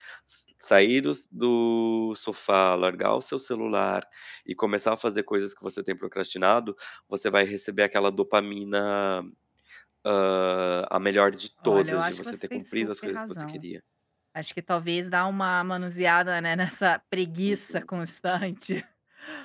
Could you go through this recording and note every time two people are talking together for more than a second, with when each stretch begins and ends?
11.6-13.6

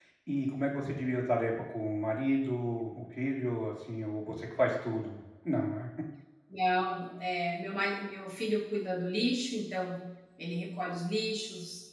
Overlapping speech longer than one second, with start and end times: none

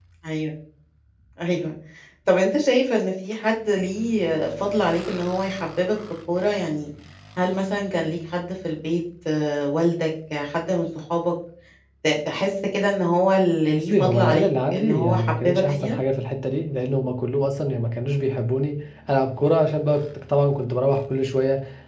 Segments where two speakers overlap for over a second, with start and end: 13.9-16.0

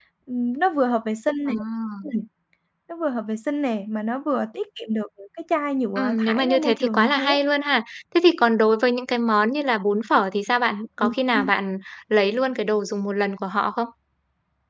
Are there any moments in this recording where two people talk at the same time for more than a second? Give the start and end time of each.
6.0-7.4

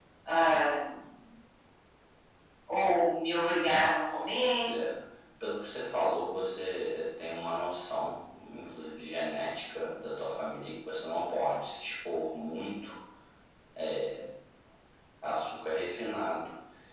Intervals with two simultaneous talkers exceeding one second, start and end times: none

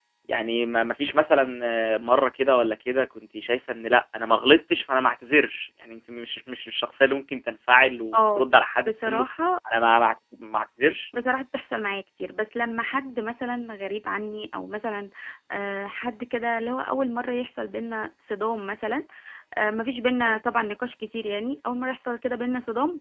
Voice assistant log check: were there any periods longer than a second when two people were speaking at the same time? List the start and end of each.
none

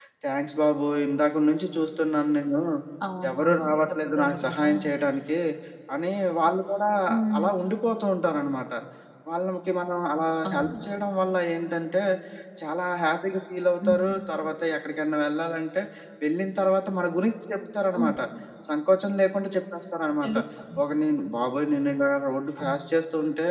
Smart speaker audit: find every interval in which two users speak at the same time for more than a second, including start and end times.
3.3-4.7

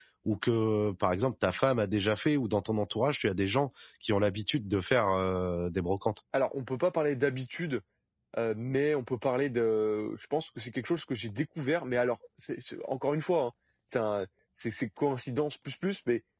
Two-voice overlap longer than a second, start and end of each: none

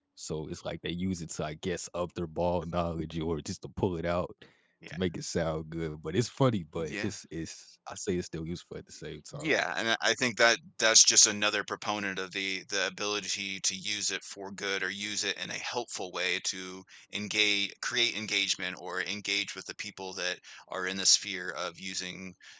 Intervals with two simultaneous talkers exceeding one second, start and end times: none

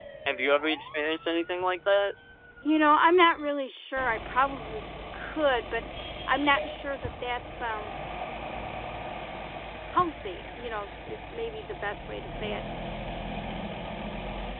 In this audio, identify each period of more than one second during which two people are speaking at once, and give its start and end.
none

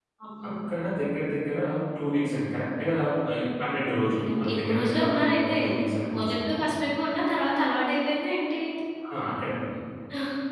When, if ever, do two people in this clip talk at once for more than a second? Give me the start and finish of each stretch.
4.4-5.6

